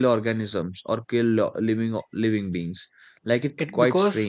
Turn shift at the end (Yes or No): Yes